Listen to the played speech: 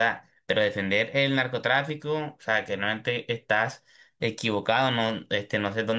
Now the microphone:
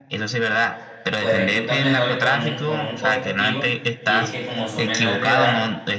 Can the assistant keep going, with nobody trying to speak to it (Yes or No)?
No